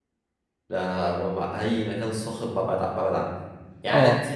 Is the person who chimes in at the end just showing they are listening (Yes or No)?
Yes